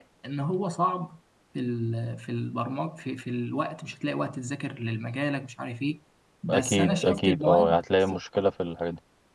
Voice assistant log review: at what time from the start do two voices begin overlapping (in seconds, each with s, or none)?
6.5 s